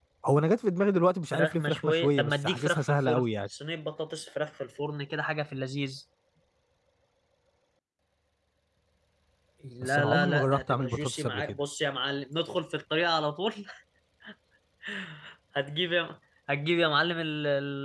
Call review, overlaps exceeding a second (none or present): present